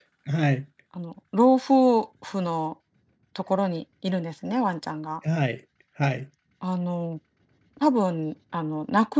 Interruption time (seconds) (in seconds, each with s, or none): none